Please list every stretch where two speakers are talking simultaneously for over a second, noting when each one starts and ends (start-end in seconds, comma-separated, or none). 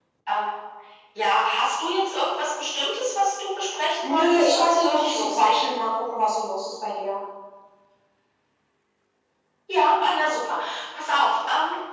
4.0-5.7